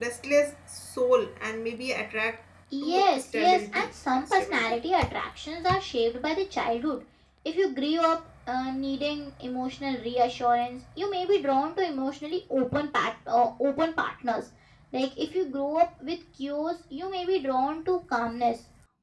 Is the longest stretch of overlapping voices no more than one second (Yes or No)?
No